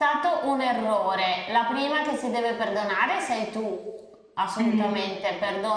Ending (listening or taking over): listening